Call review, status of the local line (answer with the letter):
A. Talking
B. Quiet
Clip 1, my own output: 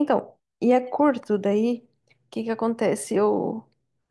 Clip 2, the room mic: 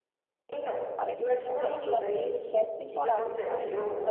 A